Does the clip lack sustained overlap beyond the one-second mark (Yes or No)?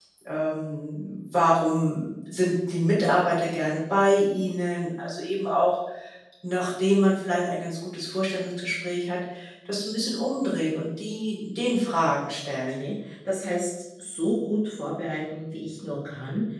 Yes